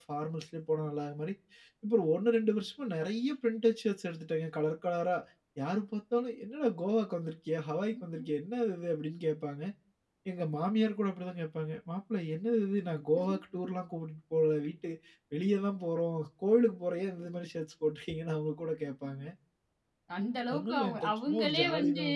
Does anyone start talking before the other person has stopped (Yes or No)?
Yes